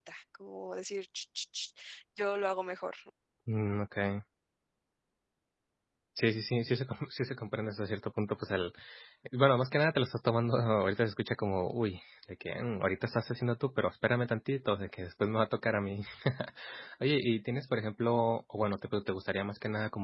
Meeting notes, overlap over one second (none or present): none